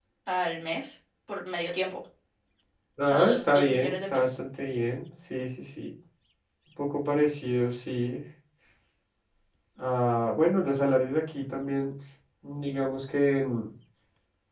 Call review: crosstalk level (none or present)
present